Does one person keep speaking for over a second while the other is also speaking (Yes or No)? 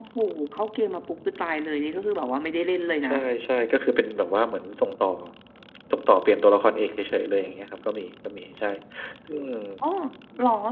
No